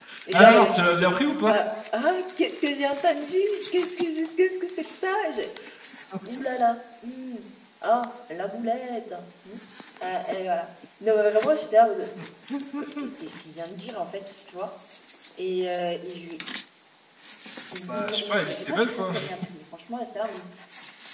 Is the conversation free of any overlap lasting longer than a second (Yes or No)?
No